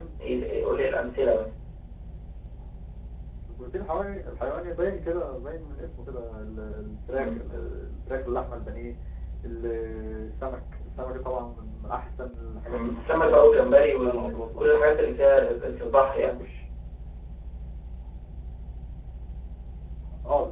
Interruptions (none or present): present